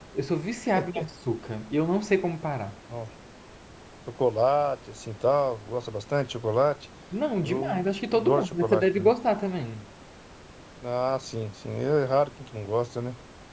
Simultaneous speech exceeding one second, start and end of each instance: 7.4-9.1

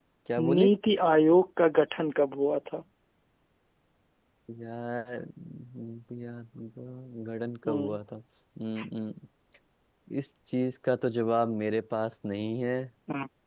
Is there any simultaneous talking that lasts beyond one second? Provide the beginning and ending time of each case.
none

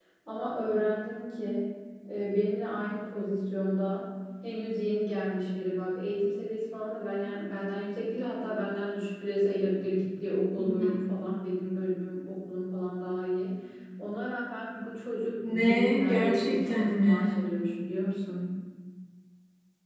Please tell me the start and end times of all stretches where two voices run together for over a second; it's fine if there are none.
15.5-17.3

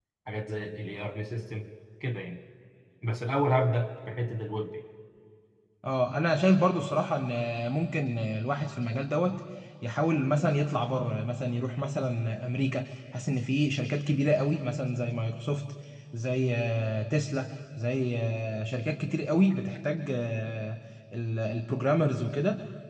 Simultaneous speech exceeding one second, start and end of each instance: none

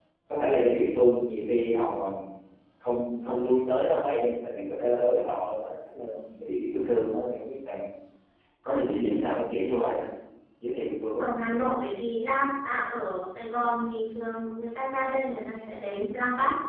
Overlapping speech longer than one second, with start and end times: none

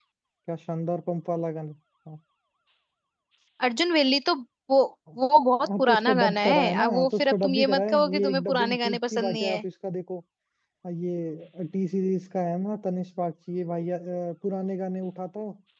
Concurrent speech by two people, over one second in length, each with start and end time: 5.6-9.6

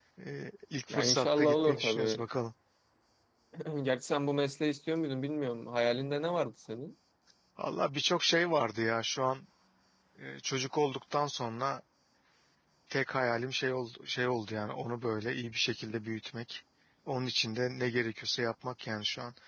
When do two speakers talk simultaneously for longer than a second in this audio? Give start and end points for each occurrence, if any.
0.9-2.2

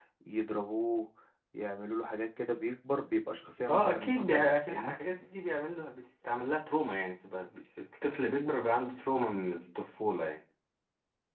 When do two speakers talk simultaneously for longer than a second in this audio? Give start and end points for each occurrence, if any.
3.7-5.0

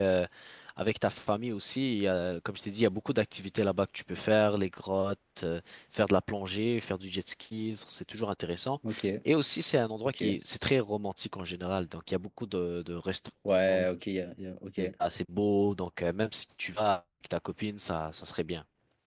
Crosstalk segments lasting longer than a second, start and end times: none

